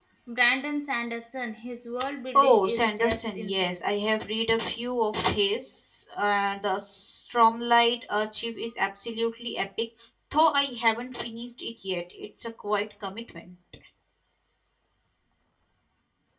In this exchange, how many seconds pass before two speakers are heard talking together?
2.4 s

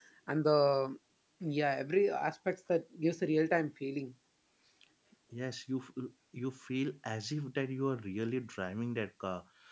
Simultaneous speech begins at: none

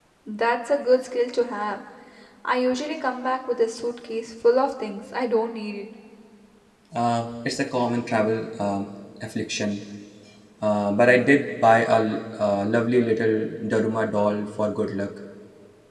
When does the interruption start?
none

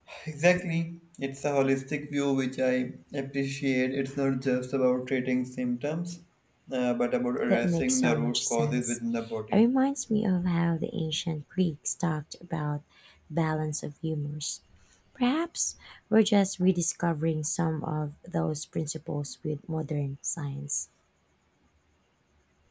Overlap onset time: 7.5 s

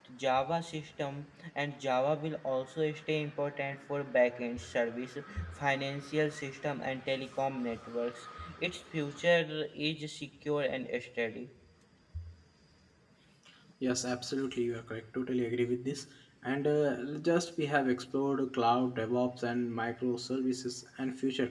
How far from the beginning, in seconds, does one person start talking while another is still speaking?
none

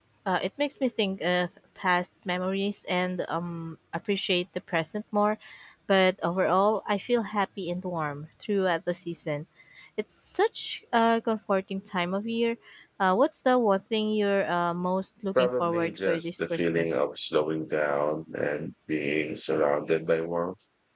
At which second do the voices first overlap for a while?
15.3 s

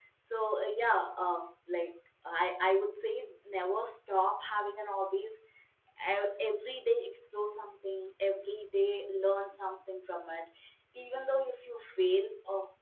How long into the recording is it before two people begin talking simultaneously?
none

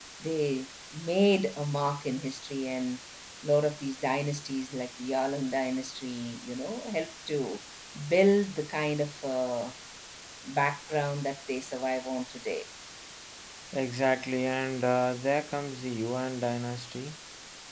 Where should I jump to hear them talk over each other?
none

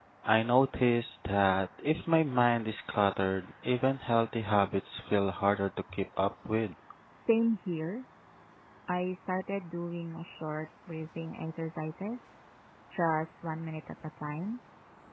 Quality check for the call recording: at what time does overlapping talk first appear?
none

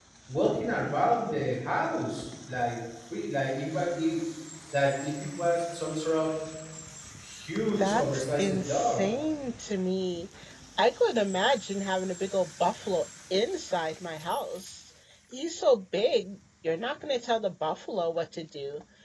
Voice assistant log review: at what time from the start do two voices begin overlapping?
7.8 s

